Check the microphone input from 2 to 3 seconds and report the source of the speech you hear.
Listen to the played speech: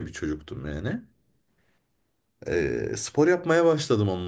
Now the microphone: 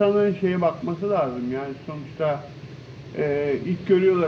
user only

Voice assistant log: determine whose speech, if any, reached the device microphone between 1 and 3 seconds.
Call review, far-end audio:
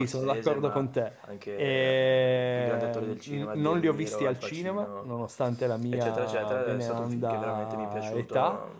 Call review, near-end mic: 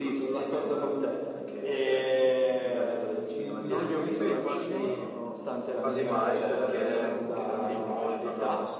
echo only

